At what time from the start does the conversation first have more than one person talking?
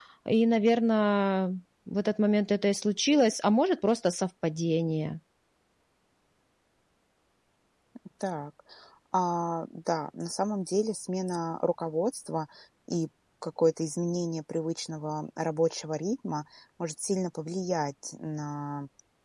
none

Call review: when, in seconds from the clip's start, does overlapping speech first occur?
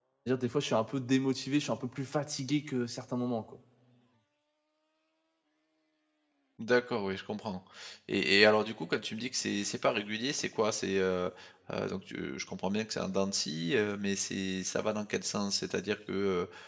none

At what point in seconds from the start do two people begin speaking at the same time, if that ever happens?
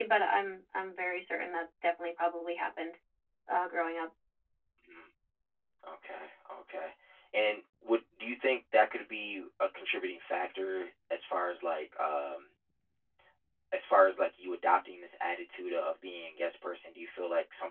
none

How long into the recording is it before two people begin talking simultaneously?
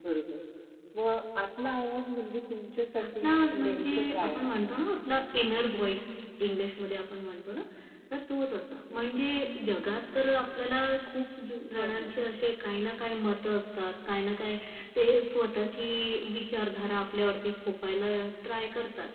3.0 s

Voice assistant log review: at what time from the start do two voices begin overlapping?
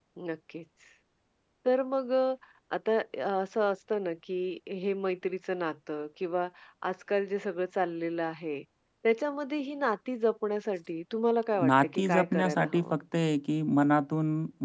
11.5 s

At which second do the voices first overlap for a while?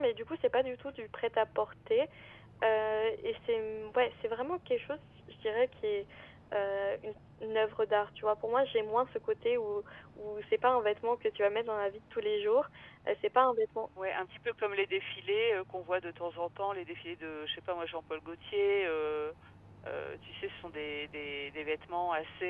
none

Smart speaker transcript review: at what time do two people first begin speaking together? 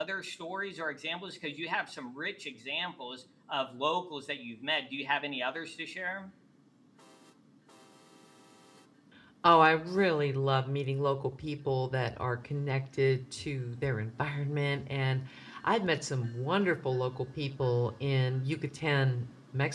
none

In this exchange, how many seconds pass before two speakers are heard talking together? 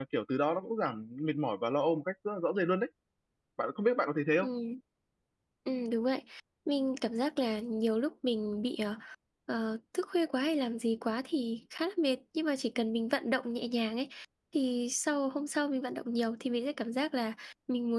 none

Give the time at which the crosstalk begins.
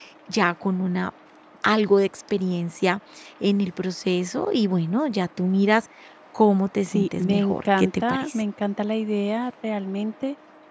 6.9 s

